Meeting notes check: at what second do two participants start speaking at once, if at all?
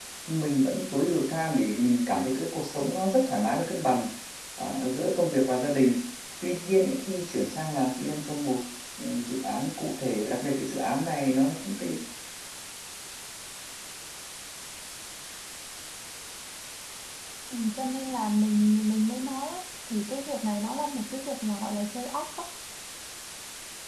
none

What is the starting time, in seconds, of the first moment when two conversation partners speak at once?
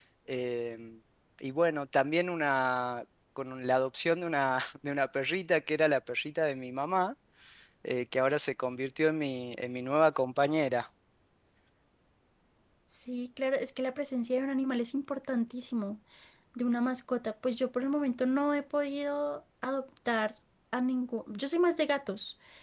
none

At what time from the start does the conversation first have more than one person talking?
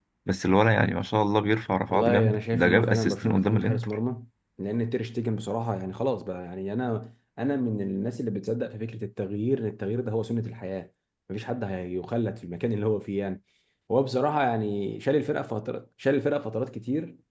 1.9 s

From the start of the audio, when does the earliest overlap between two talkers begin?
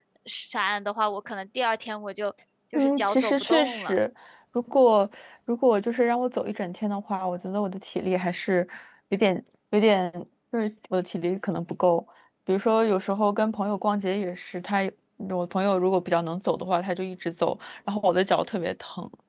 2.8 s

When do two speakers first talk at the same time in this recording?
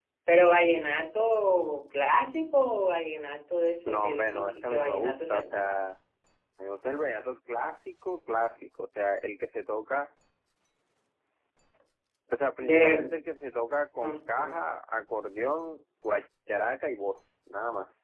3.9 s

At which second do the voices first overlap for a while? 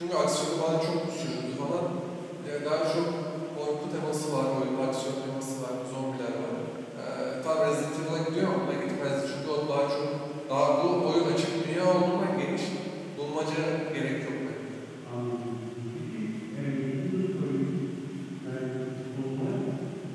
none

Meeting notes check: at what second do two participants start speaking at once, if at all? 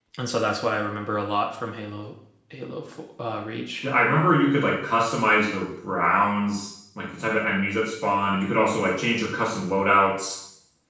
none

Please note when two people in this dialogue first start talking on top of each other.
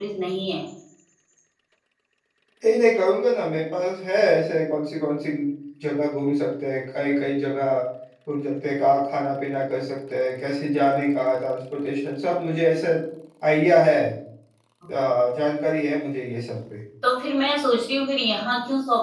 none

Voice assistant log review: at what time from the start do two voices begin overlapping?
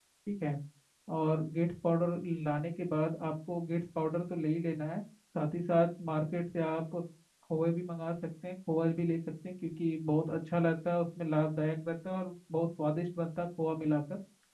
none

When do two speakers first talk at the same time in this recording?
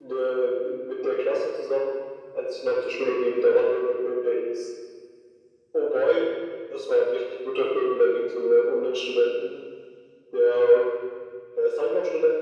none

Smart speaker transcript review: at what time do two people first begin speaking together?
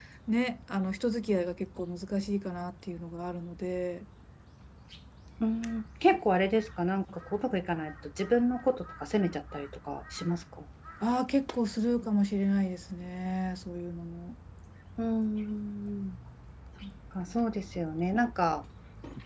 none

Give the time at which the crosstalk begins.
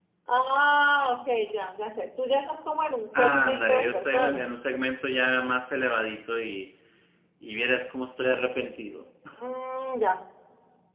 3.1 s

